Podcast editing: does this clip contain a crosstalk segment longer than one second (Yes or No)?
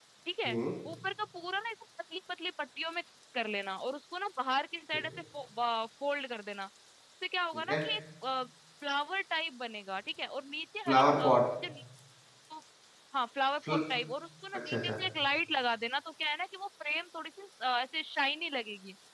No